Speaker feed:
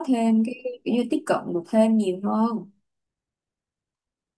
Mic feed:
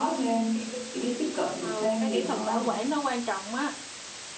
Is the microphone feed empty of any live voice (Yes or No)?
No